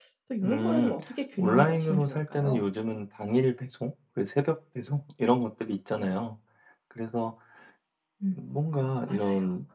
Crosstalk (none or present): present